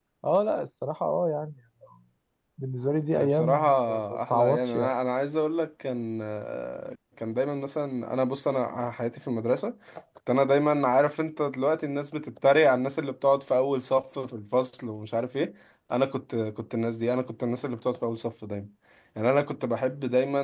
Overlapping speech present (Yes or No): Yes